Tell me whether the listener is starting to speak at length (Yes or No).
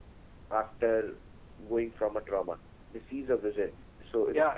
Yes